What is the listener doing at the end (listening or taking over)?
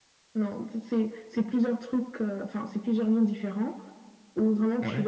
listening